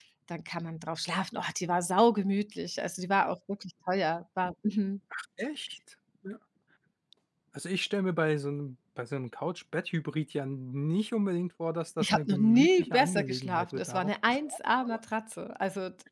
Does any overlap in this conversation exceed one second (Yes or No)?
Yes